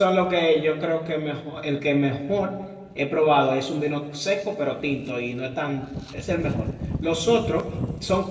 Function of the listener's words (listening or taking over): listening